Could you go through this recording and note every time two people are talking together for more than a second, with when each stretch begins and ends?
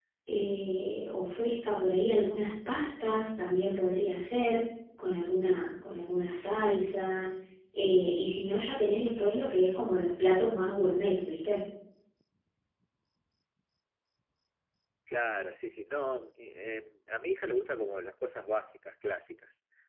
none

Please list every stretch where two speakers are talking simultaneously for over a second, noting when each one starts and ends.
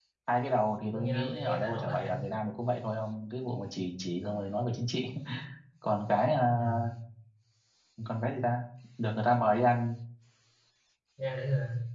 0.9-2.1

